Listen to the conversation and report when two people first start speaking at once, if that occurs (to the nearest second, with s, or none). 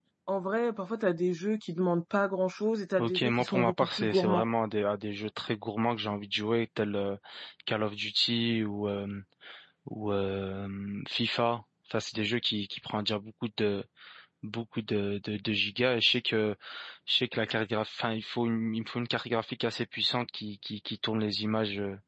3 s